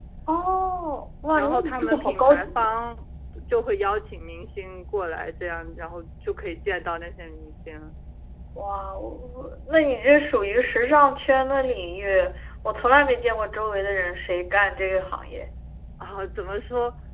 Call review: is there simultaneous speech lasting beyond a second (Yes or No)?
Yes